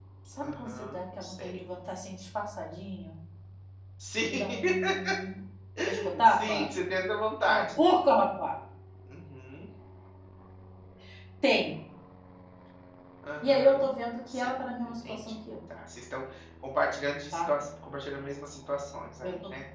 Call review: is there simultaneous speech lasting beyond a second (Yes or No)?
Yes